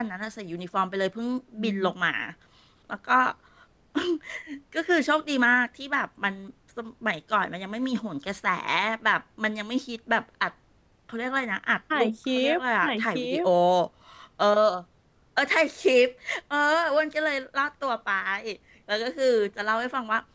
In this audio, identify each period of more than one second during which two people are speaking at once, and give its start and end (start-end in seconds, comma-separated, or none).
11.9-13.4